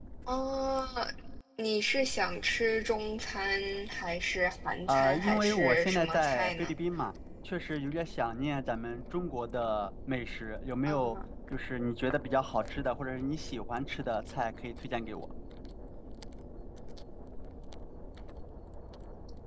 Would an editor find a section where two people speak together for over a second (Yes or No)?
Yes